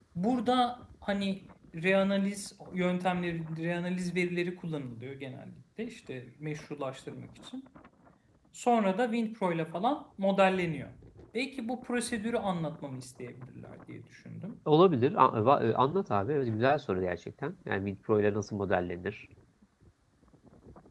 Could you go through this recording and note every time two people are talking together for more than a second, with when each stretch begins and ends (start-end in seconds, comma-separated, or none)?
none